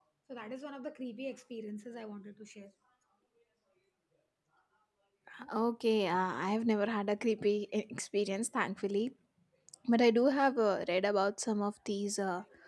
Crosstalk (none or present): none